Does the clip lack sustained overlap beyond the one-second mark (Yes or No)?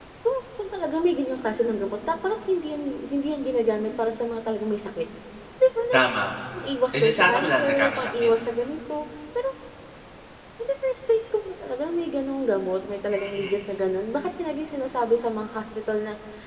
No